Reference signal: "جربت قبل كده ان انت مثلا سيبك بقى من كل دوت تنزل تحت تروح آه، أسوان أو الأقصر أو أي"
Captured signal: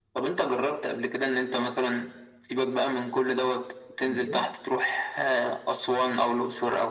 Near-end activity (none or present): present